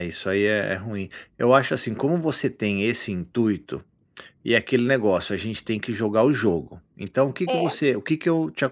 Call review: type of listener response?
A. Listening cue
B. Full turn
A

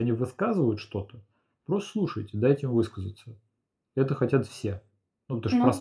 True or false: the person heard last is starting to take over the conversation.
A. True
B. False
A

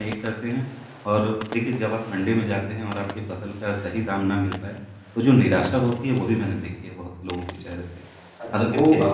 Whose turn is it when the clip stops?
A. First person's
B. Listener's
B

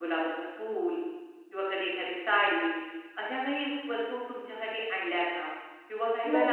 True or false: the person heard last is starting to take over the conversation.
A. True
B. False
B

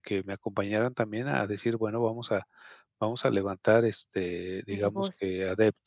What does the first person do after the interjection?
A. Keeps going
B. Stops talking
A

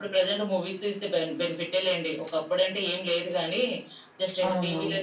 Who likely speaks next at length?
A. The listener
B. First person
B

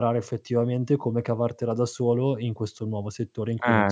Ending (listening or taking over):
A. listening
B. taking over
B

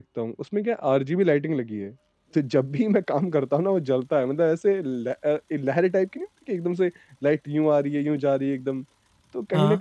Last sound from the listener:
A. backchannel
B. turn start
A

